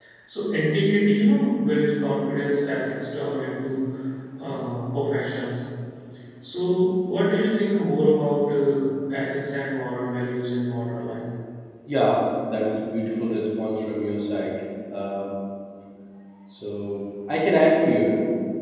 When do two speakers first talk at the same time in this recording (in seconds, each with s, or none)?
none